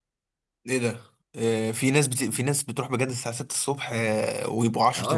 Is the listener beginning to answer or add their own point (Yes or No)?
Yes